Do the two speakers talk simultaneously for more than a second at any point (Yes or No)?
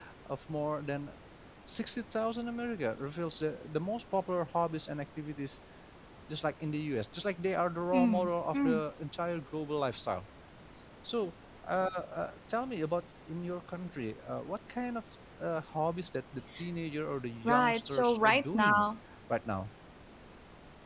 Yes